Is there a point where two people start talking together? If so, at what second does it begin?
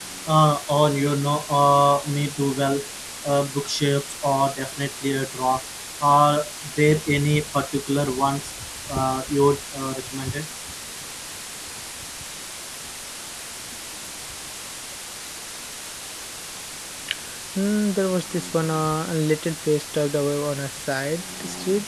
none

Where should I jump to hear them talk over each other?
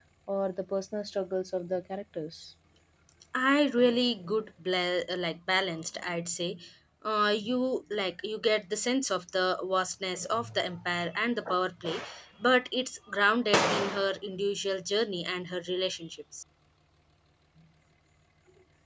none

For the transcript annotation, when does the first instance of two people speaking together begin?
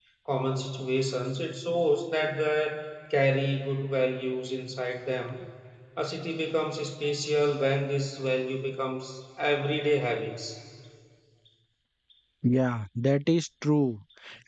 none

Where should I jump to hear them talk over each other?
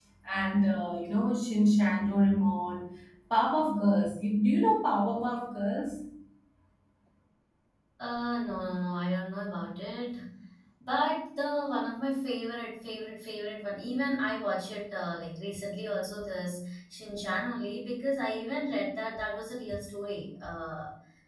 none

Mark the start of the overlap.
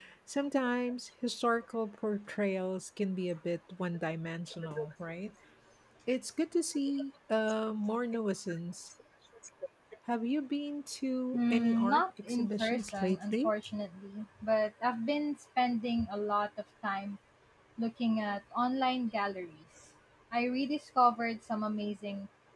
11 s

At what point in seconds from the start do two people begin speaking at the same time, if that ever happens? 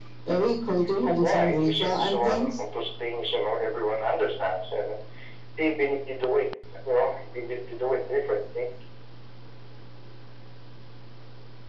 1 s

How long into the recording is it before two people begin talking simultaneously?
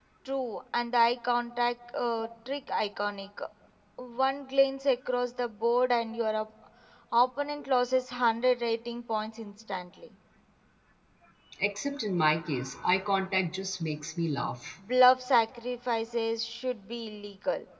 none

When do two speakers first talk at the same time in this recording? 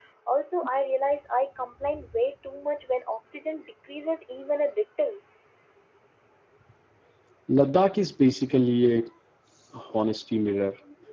none

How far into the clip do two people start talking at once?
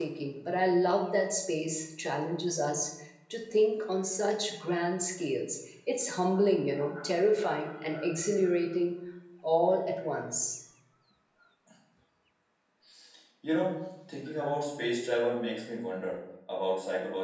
none

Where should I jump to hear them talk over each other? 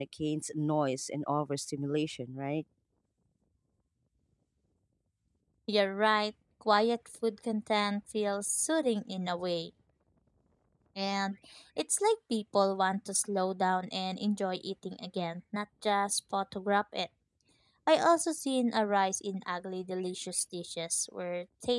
none

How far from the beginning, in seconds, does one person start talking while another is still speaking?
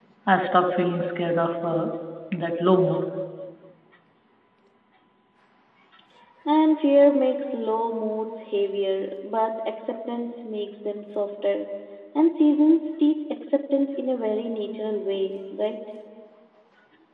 none

